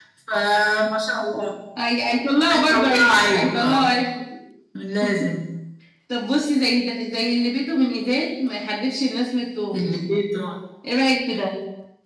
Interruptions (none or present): present